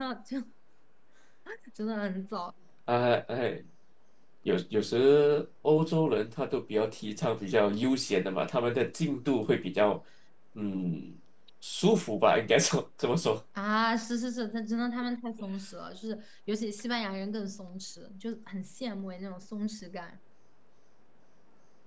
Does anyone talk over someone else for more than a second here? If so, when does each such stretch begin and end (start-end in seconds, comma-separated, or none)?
none